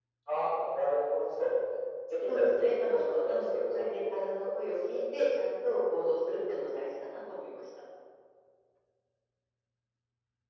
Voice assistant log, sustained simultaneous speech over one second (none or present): present